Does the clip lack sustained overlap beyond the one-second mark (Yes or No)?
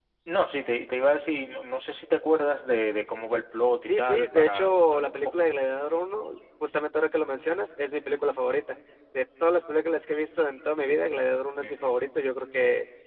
No